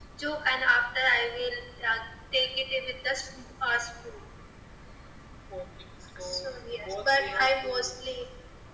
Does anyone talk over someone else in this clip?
Yes, from 6.2 s

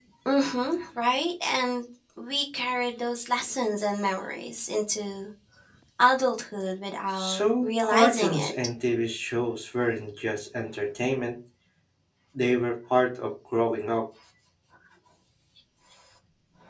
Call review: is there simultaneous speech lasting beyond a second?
Yes, from 7.2 s

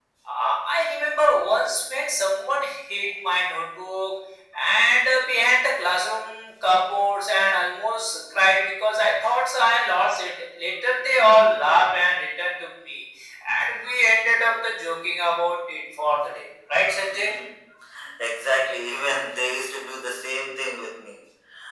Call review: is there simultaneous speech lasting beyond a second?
No

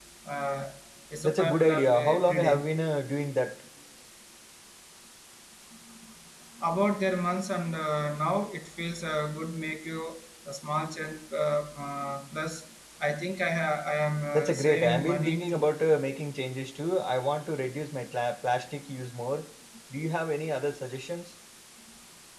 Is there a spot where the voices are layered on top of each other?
Yes, from 1.2 s

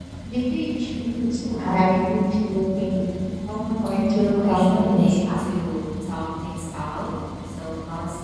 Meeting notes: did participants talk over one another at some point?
Yes, from 4.1 s

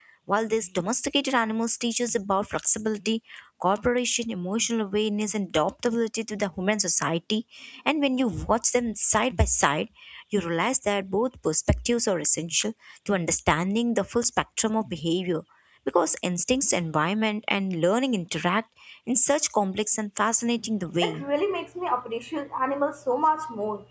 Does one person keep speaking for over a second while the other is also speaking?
No

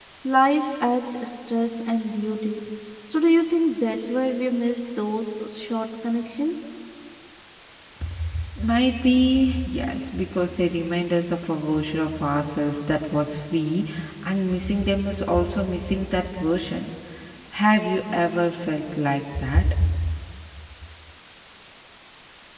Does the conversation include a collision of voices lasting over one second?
No

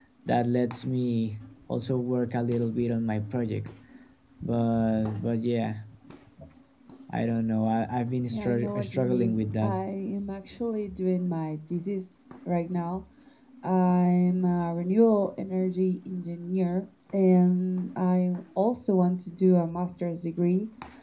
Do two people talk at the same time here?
Yes, from 8.3 s

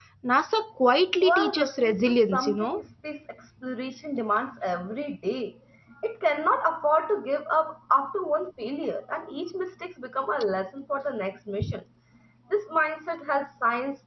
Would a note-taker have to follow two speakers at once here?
Yes, from 1.2 s

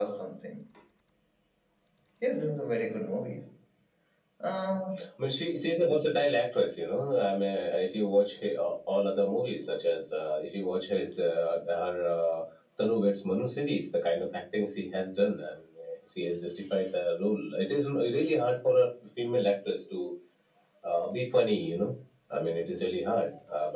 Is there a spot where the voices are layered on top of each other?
No

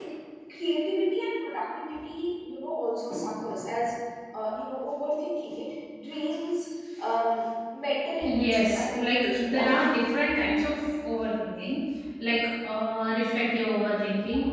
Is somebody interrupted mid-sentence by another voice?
Yes, from 8.2 s

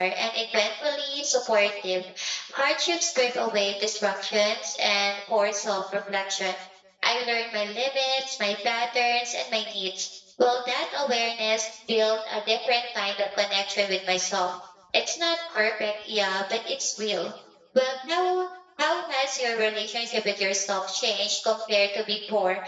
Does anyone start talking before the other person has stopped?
No

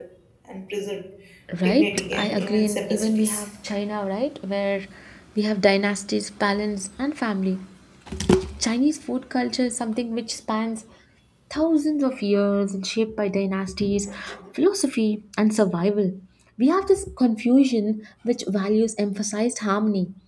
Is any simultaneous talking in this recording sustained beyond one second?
Yes, from 1.6 s

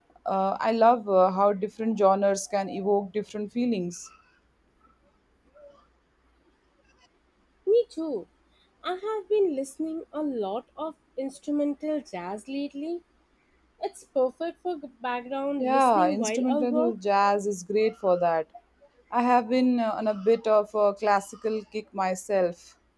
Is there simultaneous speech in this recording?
Yes, from 15.6 s

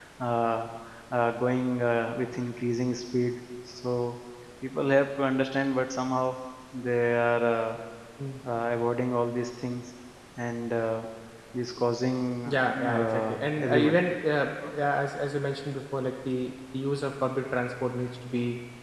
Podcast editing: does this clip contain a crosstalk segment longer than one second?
Yes, from 12.4 s

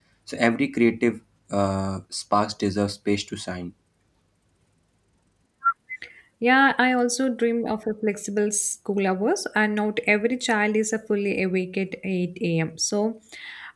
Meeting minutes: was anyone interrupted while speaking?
No

